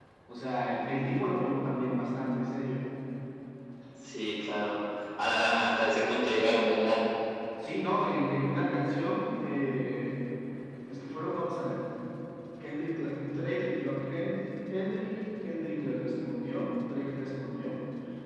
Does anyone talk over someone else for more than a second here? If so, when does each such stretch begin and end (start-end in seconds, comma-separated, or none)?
none